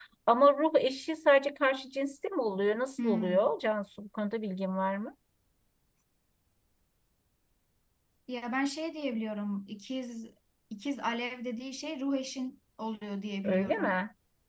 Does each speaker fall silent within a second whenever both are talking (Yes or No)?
Yes